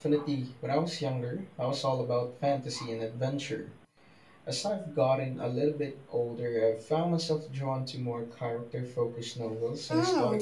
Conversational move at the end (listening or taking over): taking over